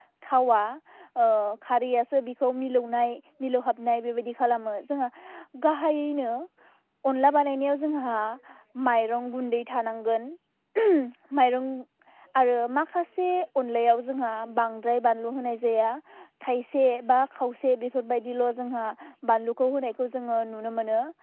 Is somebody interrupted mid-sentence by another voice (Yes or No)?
No